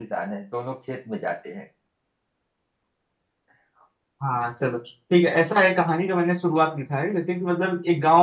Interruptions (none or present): none